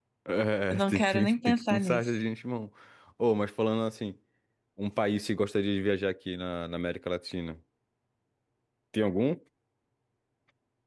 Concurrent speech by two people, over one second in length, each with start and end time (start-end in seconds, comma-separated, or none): 0.7-2.1